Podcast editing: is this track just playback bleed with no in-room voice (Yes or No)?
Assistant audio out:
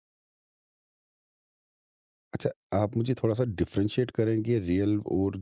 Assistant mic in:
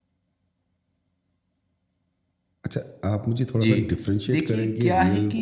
No